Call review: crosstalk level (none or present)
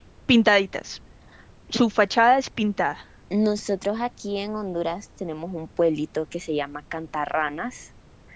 none